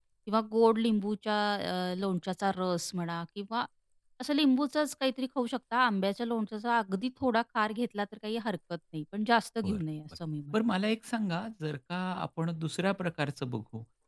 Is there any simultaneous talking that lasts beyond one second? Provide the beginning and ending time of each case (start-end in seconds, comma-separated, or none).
none